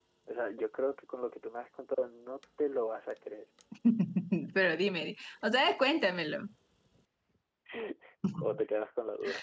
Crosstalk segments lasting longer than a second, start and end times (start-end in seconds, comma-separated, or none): none